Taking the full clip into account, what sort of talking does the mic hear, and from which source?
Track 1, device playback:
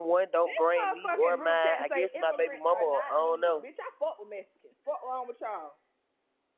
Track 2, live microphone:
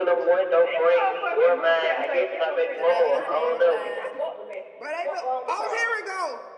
both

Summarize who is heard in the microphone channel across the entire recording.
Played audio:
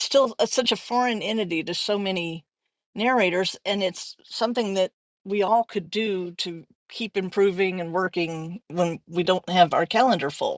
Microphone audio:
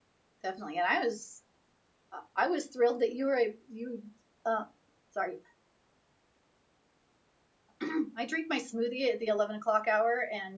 user only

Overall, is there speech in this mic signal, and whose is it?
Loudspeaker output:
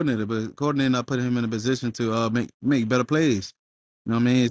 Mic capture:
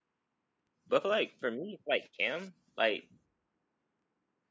user only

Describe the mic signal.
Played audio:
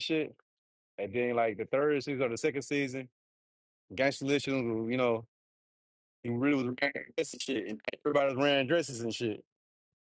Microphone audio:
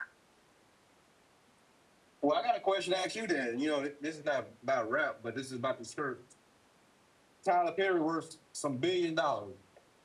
user only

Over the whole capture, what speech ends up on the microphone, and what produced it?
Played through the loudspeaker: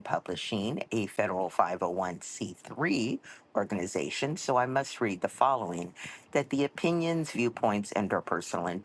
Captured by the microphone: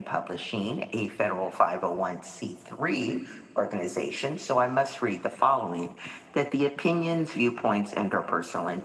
echo only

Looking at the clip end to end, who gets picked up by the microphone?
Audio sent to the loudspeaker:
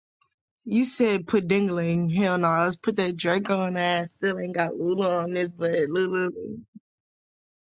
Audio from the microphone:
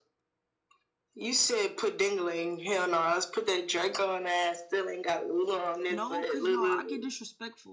both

